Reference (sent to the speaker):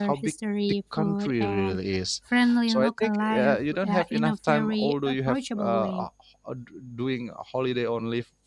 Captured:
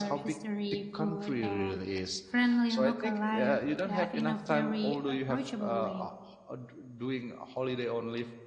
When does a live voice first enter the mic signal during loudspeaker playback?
none

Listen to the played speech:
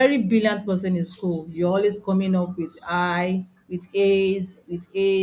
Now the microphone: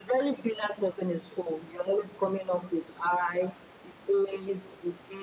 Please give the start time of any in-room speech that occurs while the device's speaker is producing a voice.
none

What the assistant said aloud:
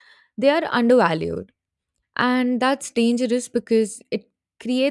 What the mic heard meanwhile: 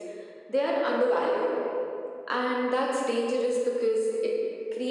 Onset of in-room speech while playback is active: none

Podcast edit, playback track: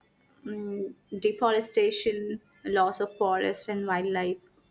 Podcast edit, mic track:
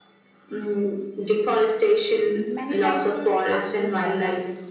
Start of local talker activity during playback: 2 s

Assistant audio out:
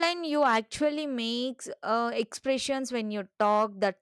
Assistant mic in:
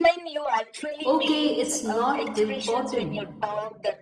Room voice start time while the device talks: 1 s

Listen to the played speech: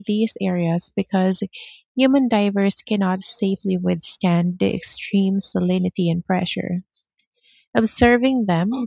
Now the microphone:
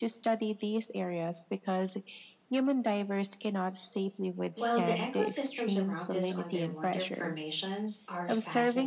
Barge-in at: 5 s

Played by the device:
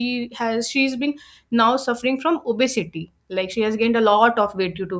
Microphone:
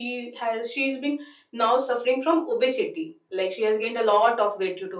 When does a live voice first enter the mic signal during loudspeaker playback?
none

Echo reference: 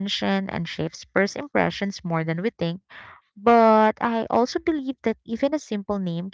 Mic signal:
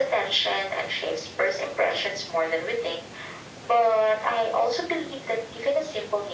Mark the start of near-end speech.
none

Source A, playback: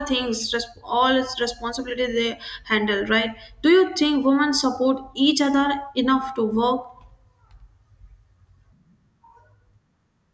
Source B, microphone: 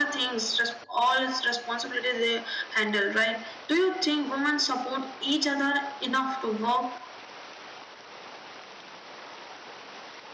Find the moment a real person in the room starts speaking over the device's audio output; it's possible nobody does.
none

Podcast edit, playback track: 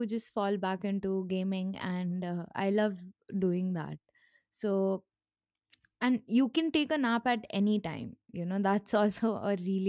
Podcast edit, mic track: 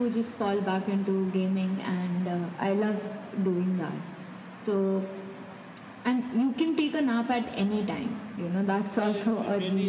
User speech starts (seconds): 9 s

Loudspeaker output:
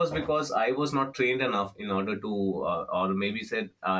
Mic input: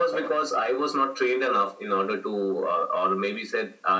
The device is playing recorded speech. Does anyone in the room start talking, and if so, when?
none

